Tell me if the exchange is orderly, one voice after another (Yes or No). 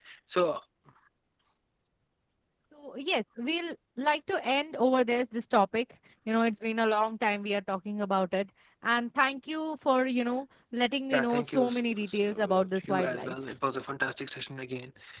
No